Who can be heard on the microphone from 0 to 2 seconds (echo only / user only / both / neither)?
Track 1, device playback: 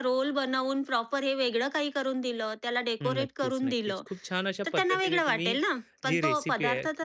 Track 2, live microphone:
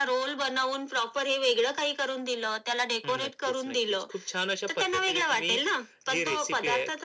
echo only